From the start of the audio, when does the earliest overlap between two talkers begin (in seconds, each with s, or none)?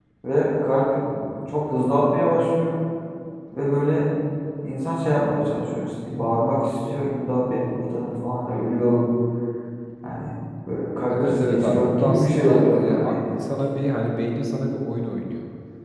11.1 s